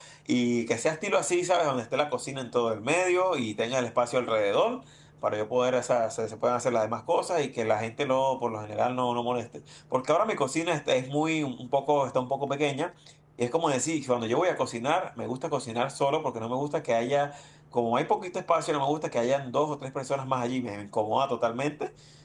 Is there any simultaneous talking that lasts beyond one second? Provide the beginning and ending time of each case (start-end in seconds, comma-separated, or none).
none